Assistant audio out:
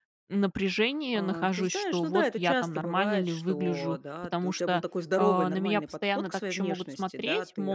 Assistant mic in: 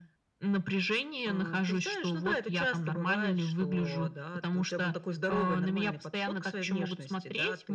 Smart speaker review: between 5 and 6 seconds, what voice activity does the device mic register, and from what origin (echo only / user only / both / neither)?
echo only